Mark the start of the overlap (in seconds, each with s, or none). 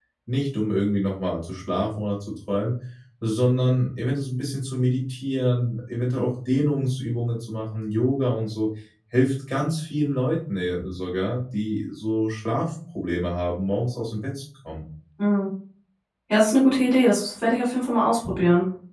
none